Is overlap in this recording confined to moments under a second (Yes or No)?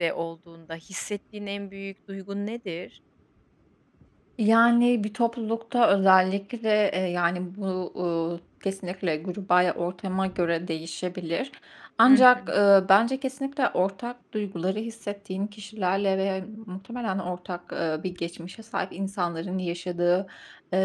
Yes